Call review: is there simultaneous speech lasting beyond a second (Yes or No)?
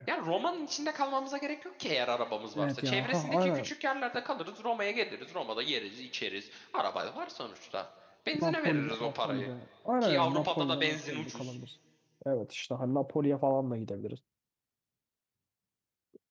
Yes